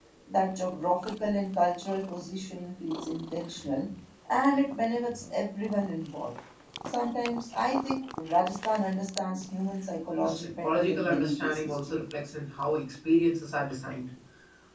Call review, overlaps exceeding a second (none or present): present